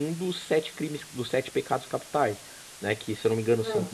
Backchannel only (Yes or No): Yes